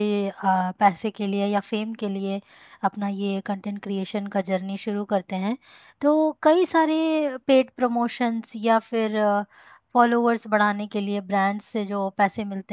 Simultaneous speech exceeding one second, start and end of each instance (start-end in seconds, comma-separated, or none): none